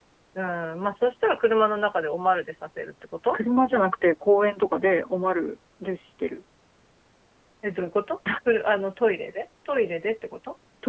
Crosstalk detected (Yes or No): No